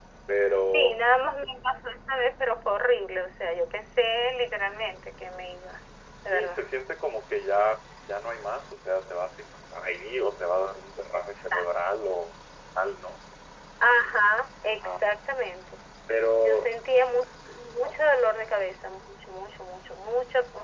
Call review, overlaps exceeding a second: none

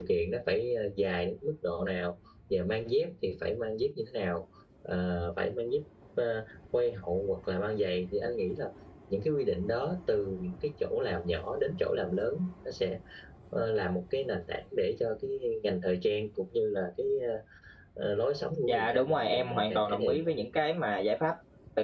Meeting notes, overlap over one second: present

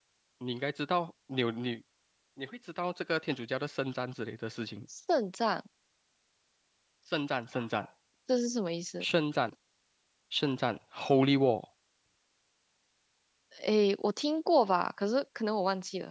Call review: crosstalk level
none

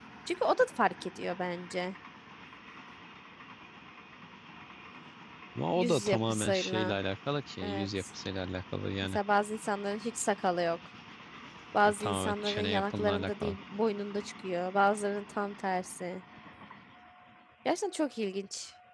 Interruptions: present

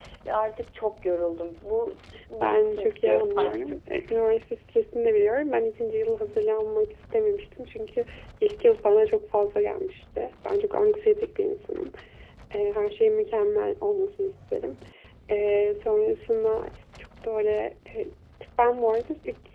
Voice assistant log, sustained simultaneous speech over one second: present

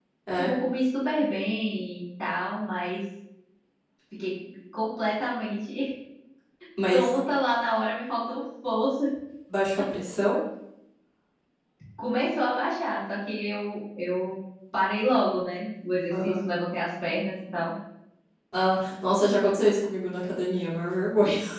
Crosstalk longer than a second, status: none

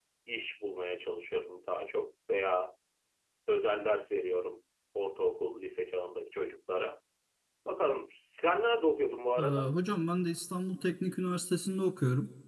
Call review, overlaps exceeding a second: none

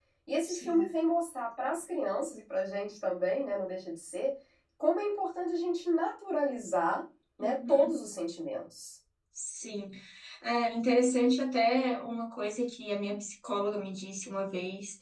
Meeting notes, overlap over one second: none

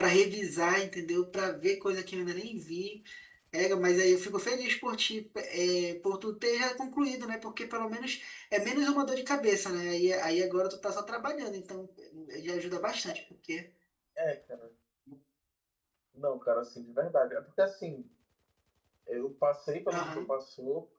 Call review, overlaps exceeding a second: none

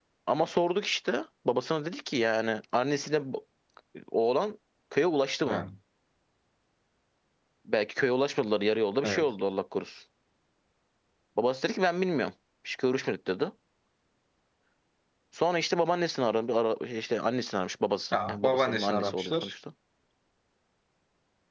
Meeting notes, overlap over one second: present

